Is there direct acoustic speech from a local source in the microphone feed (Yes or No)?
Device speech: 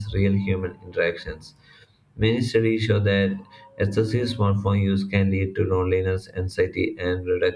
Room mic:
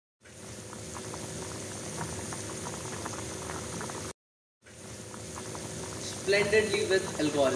Yes